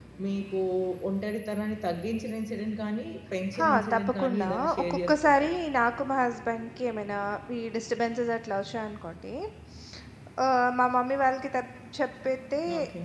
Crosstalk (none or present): present